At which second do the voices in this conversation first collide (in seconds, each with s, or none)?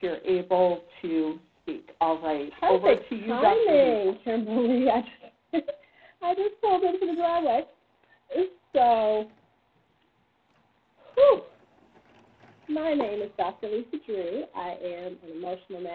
2.5 s